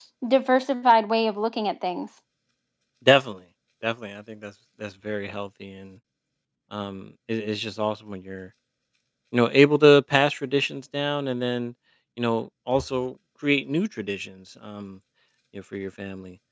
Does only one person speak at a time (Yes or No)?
Yes